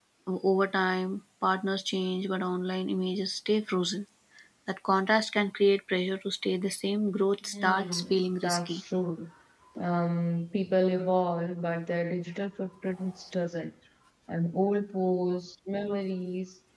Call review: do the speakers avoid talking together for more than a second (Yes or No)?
No